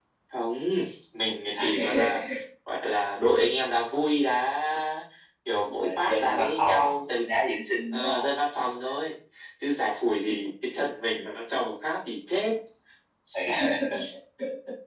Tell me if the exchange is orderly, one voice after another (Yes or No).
No